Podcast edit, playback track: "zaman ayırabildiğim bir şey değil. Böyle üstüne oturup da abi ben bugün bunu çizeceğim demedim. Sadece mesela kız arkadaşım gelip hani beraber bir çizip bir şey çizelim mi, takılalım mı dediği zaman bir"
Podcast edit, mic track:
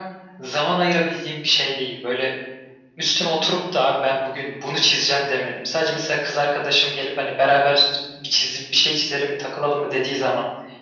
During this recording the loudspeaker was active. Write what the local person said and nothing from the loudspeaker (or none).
none